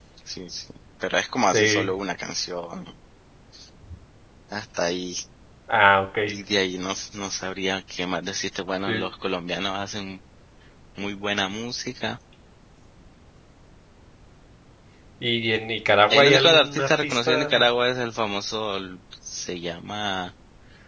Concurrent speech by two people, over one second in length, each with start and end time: 16.1-17.5

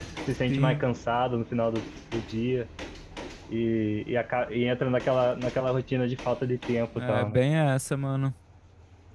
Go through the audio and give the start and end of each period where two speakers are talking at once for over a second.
none

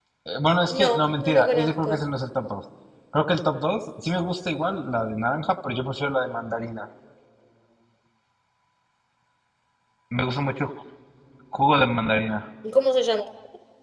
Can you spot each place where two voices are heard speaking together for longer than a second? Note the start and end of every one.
0.7-2.0

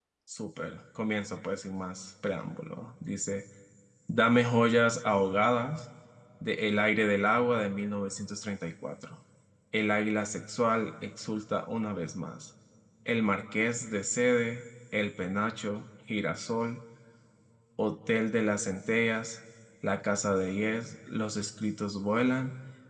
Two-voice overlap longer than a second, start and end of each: none

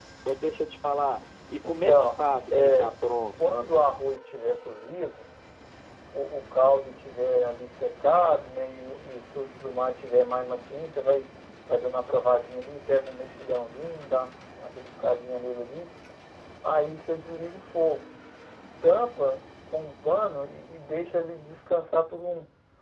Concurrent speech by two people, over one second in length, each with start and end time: 1.7-2.9

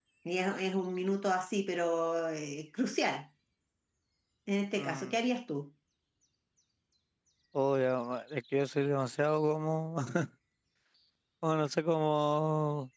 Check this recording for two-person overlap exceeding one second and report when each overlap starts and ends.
none

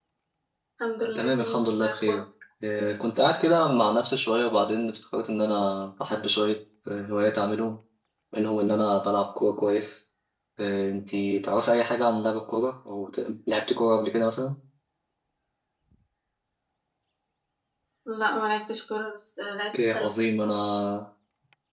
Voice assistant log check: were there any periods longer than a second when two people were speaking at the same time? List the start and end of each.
1.0-2.2

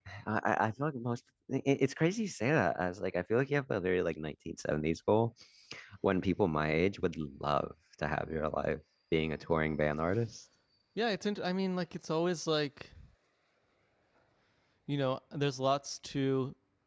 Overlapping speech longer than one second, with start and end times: none

